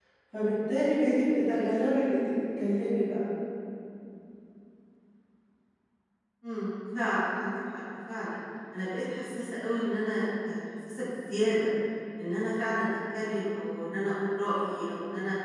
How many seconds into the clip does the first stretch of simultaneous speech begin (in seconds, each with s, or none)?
none